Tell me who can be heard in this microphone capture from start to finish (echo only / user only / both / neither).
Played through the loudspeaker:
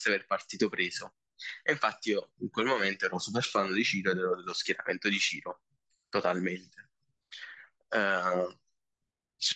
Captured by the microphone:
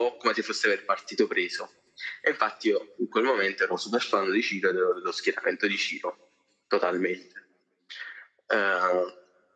echo only